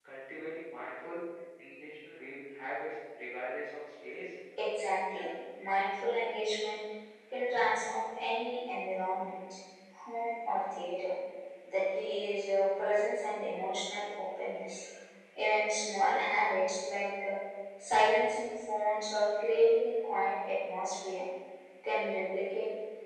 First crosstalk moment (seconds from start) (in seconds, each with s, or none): none